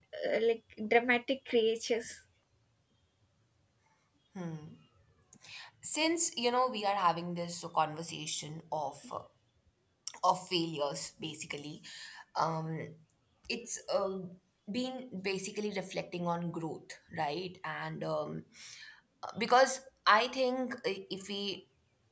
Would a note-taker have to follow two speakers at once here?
No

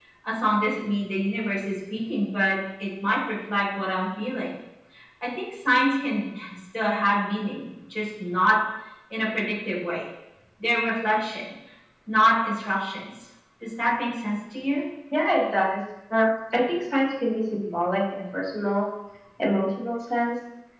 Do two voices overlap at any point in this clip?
No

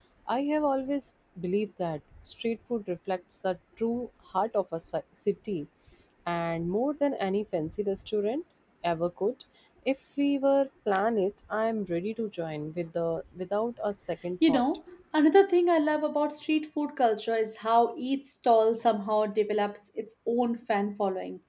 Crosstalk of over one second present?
No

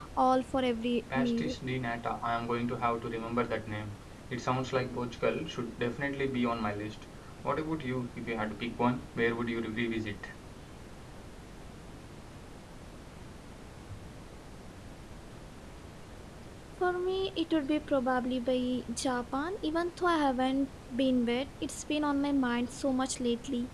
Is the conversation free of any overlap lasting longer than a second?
Yes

